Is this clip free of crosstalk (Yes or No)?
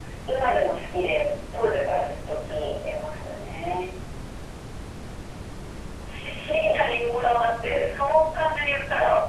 Yes